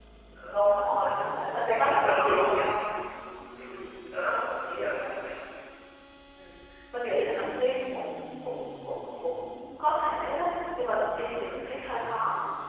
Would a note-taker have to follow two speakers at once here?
Yes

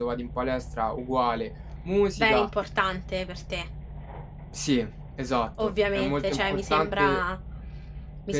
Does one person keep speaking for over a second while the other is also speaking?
Yes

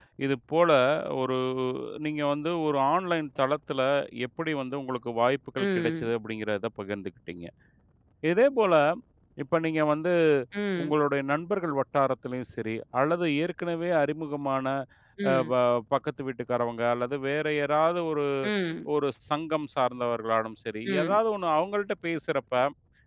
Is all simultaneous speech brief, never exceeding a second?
Yes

